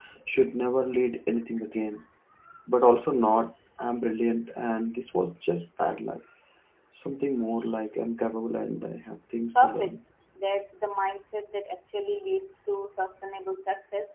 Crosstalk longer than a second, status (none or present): none